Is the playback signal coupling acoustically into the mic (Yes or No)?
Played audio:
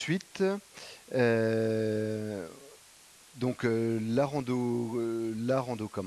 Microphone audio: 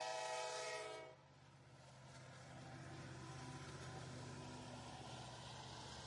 No